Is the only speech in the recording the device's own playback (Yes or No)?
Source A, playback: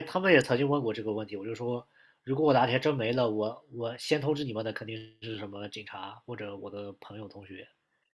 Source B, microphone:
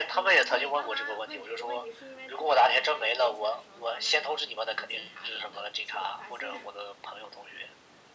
No